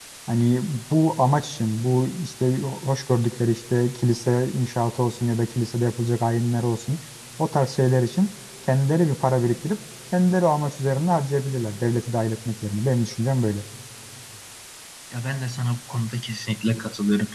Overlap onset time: none

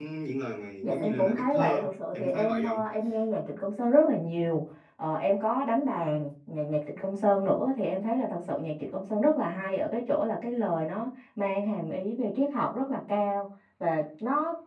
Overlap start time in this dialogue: 0.8 s

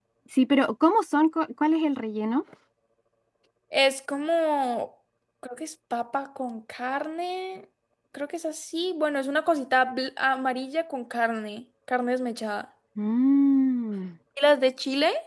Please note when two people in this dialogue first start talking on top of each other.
none

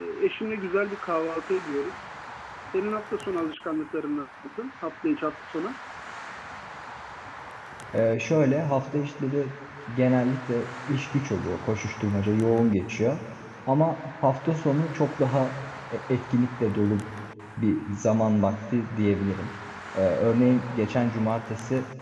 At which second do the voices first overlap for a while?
none

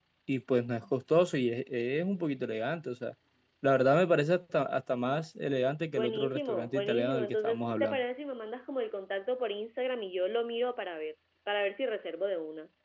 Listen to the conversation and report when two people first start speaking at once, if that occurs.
5.9 s

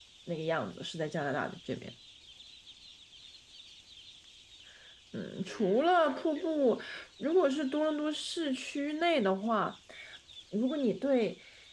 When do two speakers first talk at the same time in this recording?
5.5 s

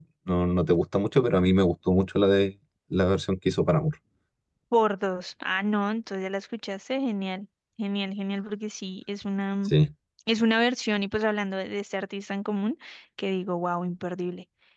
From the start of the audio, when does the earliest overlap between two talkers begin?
none

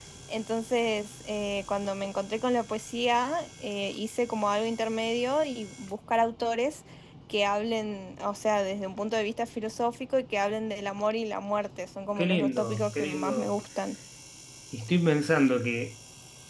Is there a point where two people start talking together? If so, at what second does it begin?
12.2 s

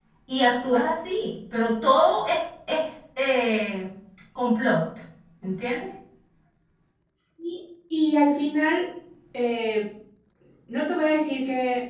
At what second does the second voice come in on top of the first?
none

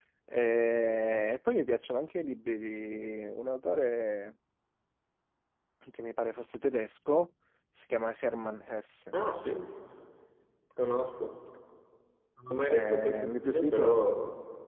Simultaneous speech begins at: 12.6 s

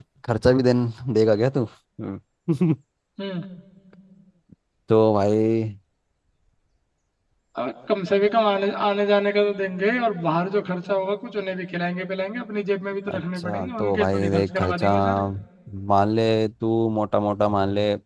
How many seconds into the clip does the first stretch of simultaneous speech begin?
13.1 s

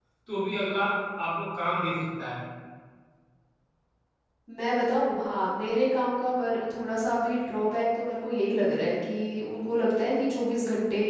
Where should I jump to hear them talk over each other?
none

